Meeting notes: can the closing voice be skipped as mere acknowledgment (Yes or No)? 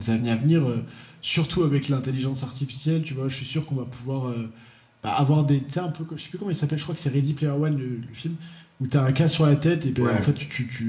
Yes